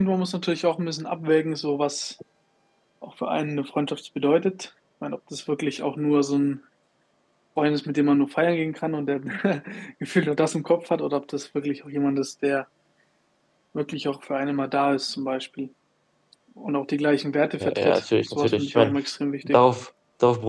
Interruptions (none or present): present